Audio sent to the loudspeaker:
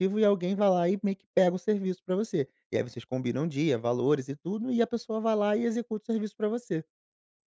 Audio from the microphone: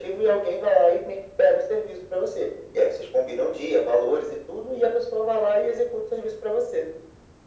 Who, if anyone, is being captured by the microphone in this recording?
echo only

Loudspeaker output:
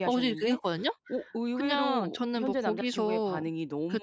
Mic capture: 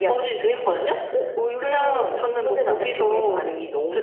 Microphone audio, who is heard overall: echo only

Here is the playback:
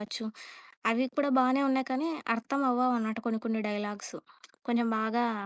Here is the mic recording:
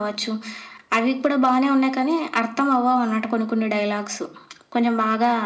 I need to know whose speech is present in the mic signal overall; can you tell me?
echo only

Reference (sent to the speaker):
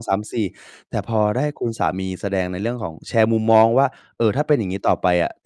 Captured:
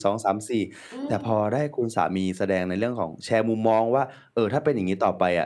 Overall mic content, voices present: both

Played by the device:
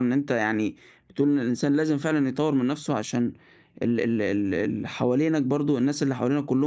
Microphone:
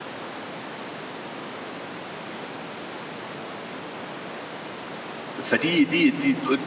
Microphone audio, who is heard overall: user only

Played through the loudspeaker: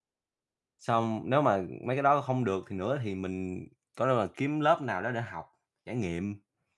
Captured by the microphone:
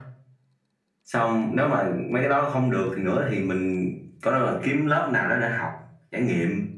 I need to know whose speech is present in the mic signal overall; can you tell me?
echo only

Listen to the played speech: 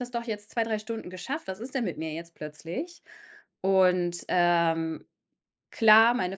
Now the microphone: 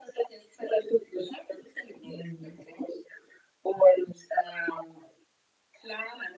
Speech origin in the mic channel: both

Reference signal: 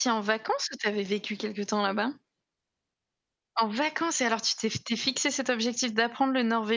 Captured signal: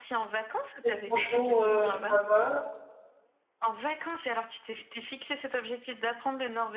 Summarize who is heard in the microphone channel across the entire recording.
both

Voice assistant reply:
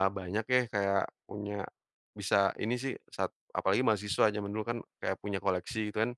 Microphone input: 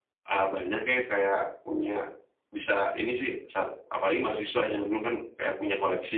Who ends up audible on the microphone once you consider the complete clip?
echo only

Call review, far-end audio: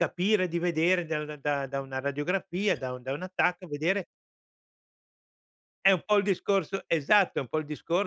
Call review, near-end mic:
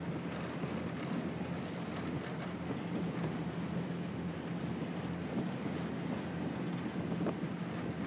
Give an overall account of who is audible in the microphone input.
neither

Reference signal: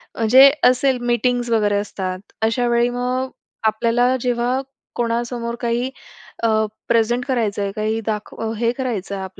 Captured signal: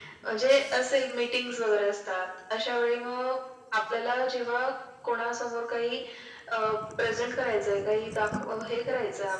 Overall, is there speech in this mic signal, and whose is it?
echo only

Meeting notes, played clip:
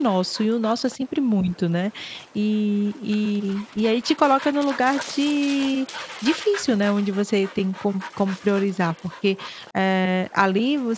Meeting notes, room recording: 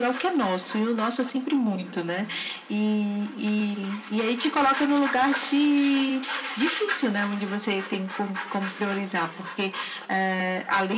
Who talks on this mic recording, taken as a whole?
echo only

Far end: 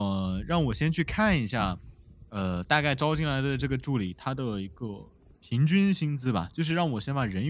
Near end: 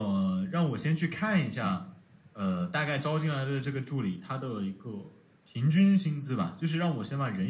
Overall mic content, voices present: echo only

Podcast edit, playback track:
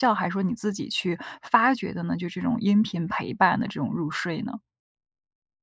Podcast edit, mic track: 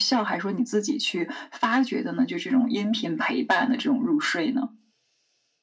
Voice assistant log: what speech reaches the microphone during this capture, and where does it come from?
echo only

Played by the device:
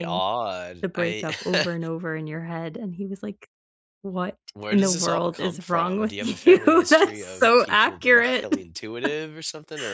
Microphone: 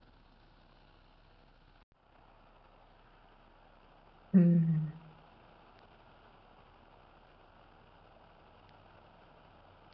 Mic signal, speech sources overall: user only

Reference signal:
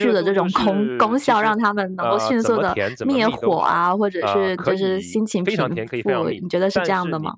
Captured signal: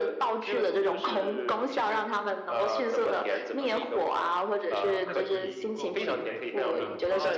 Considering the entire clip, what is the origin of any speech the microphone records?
both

